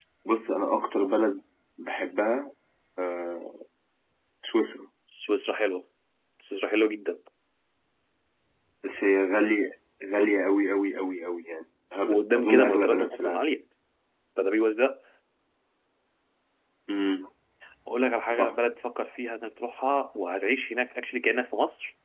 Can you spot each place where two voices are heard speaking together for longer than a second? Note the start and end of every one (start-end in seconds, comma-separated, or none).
12.1-13.4